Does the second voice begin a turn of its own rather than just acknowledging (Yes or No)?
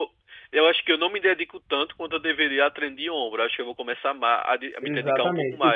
Yes